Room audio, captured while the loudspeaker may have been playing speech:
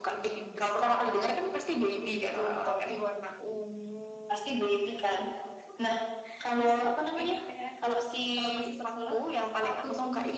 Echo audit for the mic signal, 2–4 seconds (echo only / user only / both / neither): both